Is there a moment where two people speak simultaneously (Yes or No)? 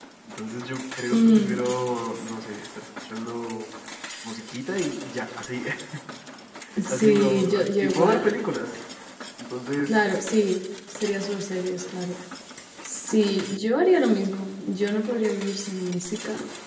Yes